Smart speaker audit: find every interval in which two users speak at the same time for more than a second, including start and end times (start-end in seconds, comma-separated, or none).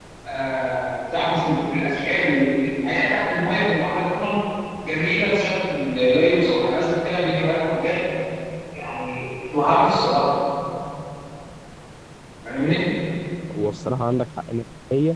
none